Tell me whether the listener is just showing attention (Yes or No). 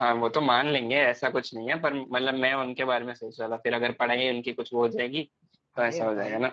No